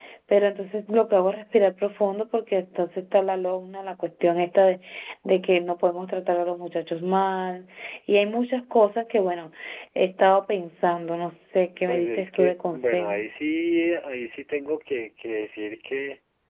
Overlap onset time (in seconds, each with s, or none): 11.9 s